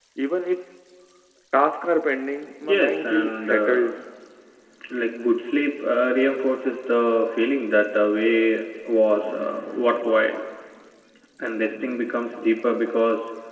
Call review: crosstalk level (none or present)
present